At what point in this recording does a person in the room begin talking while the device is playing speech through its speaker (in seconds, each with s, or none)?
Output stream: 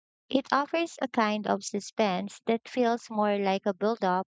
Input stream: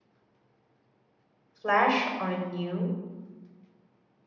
1.5 s